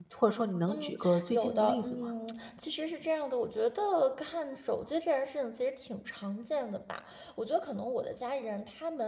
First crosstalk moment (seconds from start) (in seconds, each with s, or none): 0.7 s